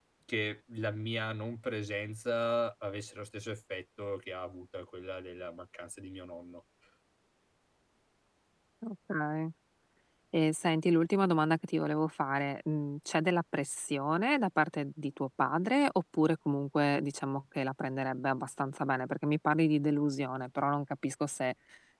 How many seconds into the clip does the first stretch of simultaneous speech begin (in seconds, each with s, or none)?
none